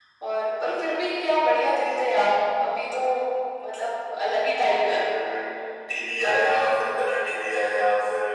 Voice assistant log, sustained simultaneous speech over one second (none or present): none